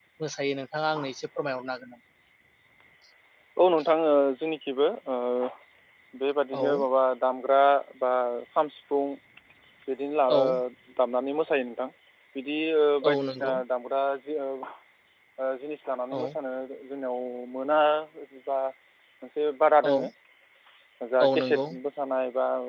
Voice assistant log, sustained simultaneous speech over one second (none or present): none